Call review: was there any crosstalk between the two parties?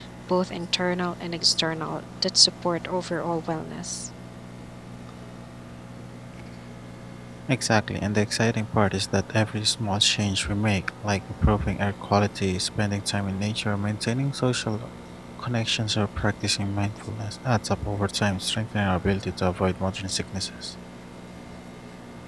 No

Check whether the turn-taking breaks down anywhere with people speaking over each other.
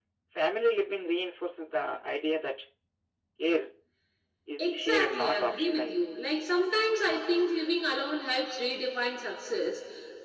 Yes, from 4.6 s

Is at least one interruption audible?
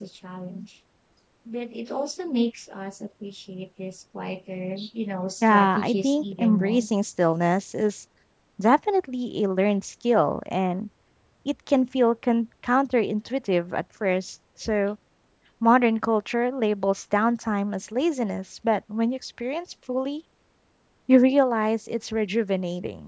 Yes, from 5.4 s

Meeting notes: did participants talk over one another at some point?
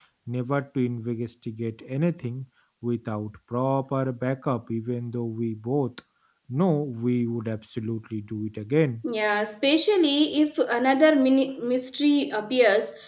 No

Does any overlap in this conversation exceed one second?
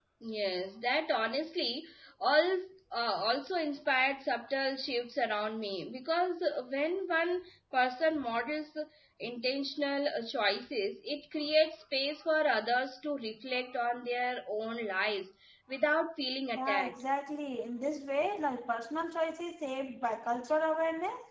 No

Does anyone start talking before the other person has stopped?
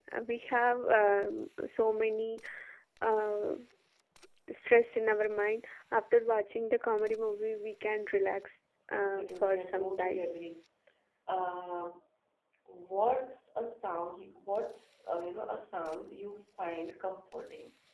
Yes, from 8.9 s

